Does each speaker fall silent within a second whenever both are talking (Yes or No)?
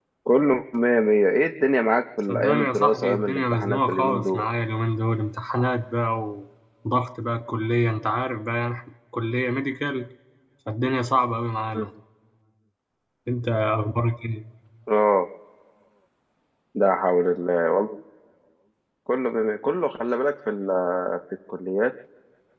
No